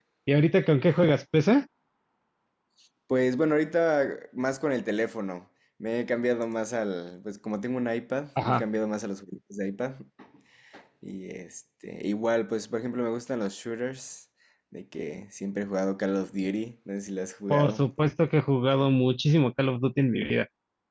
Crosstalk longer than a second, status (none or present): none